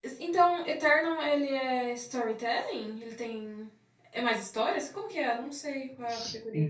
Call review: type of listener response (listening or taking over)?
taking over